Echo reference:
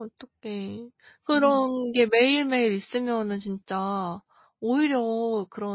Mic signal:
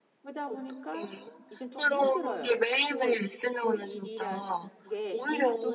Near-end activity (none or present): present